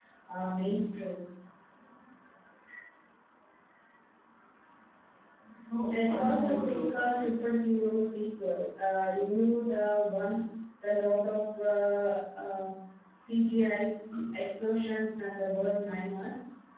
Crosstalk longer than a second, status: present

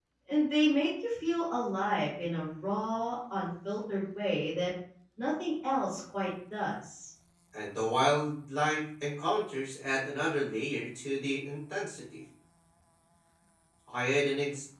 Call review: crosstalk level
none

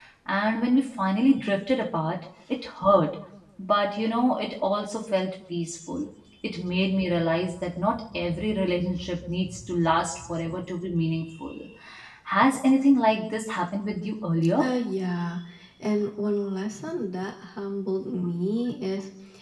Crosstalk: none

